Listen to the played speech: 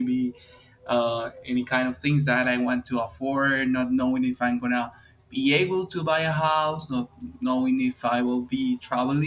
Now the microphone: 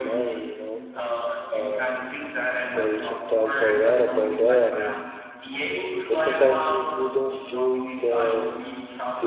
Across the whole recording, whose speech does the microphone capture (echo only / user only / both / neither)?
both